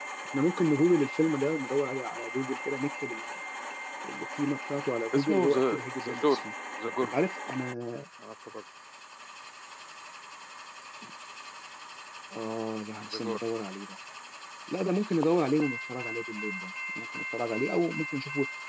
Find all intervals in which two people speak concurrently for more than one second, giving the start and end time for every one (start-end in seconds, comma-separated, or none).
5.1-6.4